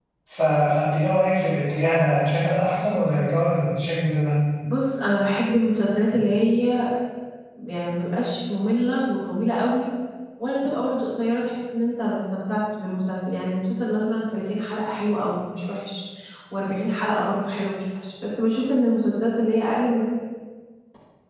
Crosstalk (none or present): none